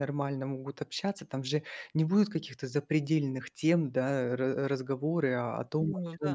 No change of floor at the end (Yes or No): Yes